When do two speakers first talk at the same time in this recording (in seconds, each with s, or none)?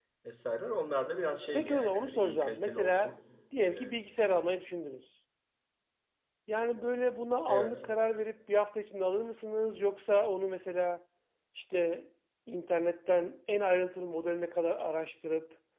1.5 s